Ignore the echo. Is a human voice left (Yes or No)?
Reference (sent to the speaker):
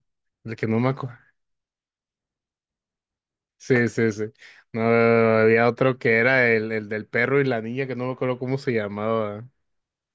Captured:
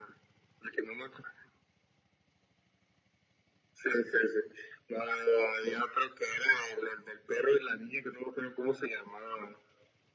No